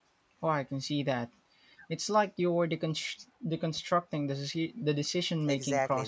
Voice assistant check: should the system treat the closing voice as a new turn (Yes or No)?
Yes